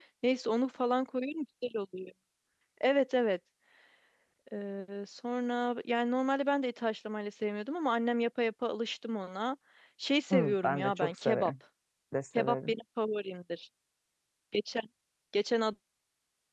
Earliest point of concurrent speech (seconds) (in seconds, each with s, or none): 10.3 s